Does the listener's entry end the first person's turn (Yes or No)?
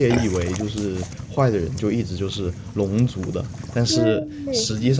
No